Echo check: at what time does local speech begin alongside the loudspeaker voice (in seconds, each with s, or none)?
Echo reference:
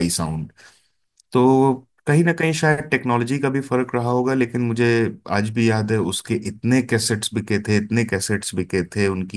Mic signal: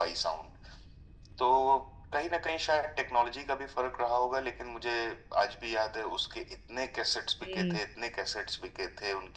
7.4 s